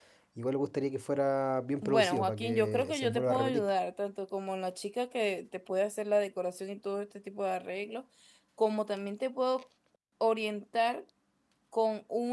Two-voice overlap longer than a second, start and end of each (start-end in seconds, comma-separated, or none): 1.8-3.8